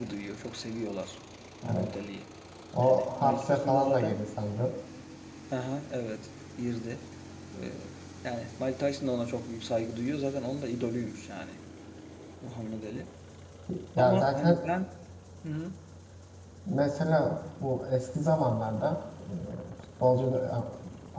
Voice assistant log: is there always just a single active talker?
No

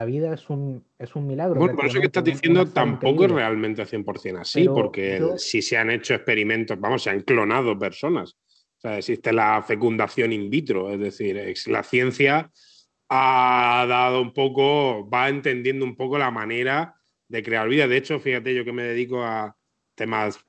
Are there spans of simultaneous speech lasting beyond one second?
Yes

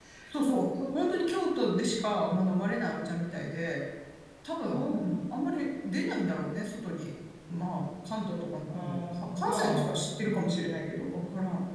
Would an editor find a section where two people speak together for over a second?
Yes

